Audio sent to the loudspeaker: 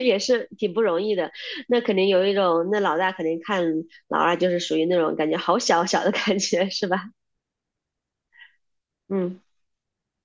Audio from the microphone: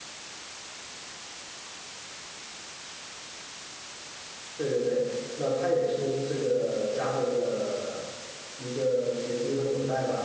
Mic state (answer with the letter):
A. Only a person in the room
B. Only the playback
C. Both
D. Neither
A